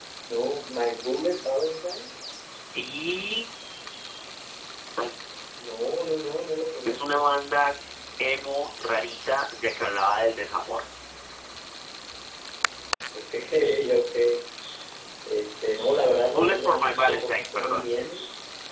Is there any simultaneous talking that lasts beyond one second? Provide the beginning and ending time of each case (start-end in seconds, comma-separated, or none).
16.4-17.8